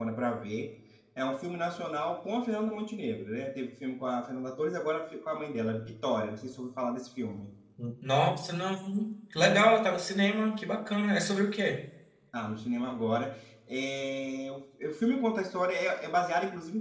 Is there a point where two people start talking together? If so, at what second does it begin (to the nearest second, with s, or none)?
none